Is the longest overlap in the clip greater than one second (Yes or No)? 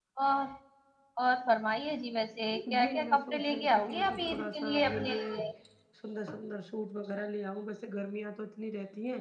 Yes